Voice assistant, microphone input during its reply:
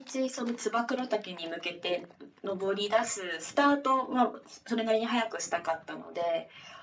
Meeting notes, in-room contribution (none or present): none